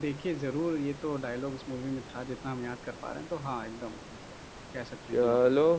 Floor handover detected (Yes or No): Yes